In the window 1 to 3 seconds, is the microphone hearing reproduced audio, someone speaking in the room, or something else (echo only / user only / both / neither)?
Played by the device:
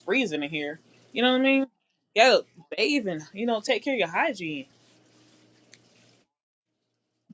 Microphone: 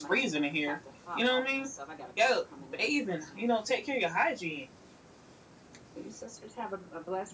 both